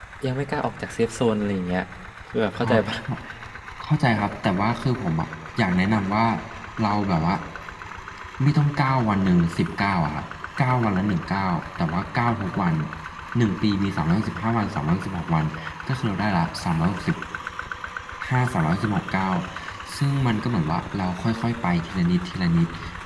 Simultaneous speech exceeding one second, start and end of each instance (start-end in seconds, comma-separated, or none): none